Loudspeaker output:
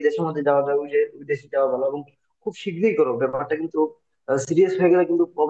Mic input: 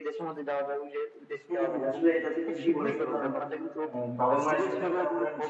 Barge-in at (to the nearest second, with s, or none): 1 s